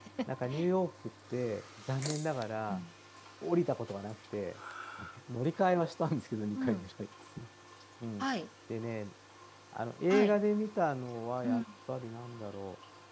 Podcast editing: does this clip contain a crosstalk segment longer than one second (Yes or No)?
No